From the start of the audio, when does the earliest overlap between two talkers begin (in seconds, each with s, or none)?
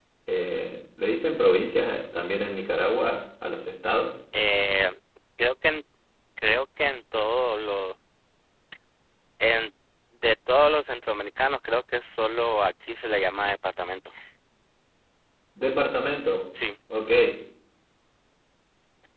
none